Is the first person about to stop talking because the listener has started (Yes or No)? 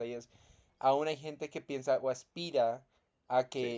No